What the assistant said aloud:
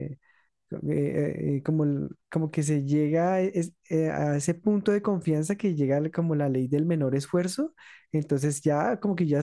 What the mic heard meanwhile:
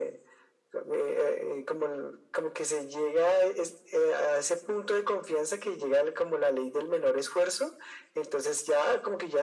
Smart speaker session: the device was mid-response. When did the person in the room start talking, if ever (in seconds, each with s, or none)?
none